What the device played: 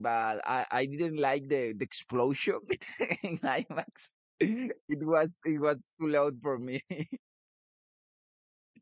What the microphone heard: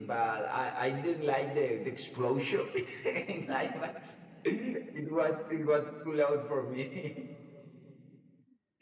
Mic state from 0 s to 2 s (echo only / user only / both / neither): echo only